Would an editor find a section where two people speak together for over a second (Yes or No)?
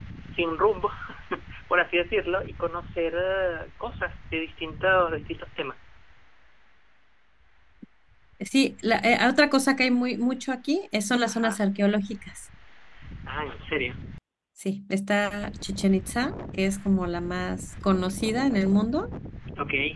No